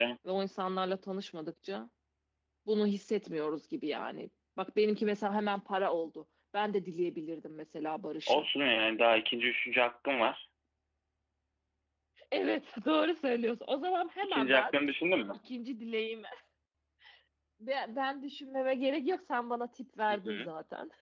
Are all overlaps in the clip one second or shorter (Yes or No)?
Yes